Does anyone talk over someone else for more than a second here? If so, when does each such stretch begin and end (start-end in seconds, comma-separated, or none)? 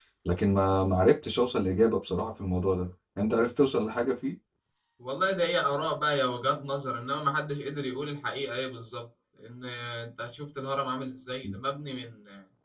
none